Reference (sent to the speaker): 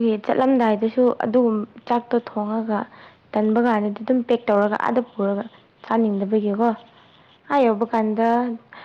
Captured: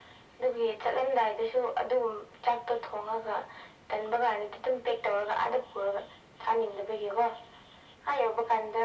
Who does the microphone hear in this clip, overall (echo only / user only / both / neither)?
echo only